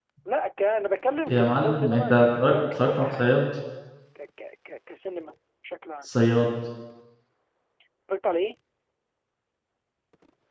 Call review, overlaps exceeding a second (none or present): present